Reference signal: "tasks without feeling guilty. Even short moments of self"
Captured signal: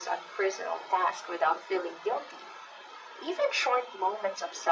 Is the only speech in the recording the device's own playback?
Yes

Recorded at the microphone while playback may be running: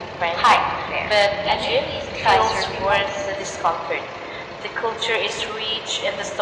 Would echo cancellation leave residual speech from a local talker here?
No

